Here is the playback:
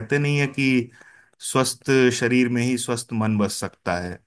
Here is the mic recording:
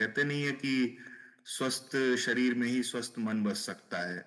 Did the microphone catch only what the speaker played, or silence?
Yes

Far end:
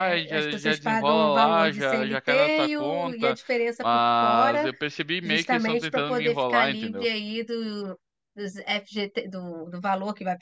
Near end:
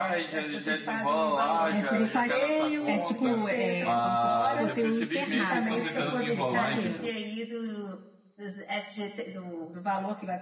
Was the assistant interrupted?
Yes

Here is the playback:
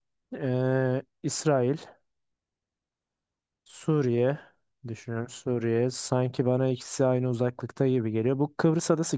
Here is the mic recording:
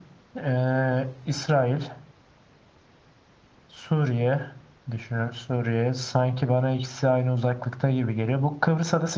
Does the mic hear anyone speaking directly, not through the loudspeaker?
No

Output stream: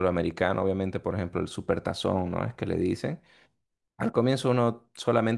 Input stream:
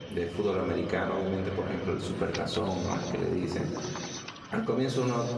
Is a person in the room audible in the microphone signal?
No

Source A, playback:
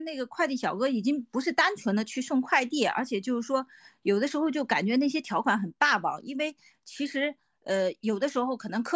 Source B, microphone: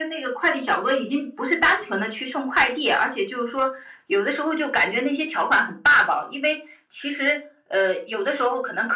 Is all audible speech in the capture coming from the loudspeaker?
Yes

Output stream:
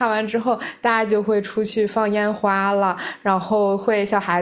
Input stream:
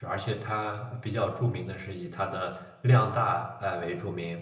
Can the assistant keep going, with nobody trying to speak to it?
No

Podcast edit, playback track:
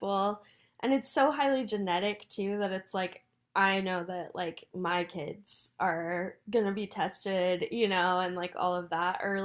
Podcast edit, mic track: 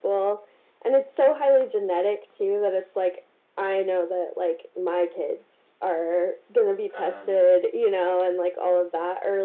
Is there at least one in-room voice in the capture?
Yes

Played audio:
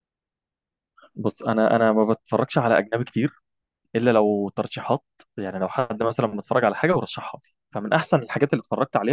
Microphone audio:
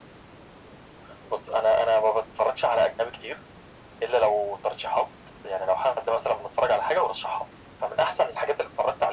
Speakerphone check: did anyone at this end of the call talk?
No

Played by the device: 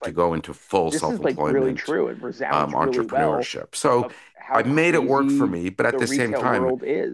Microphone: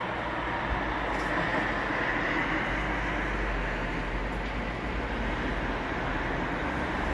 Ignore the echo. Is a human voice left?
No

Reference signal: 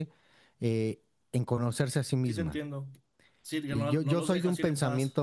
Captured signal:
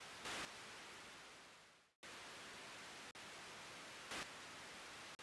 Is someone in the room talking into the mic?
No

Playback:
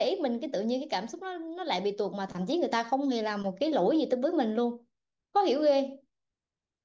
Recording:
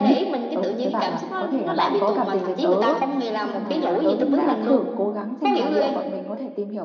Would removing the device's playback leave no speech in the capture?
No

